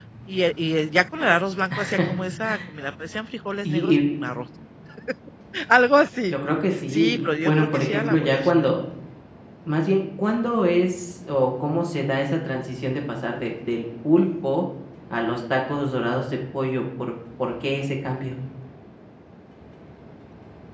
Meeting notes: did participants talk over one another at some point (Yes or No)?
Yes